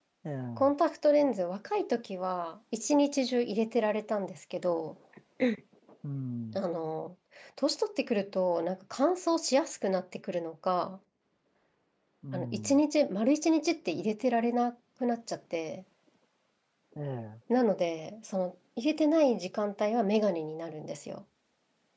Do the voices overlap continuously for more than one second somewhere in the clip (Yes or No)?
No